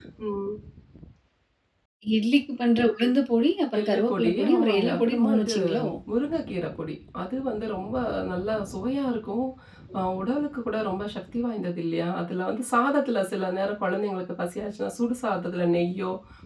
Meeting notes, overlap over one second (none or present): present